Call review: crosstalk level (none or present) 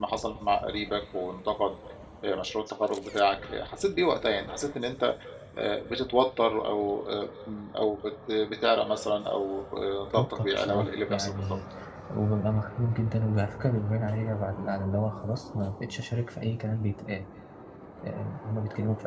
present